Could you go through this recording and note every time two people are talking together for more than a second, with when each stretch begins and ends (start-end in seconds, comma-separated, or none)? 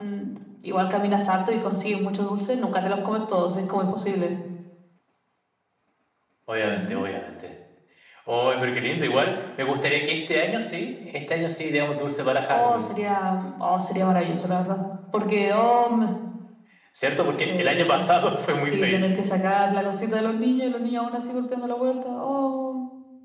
none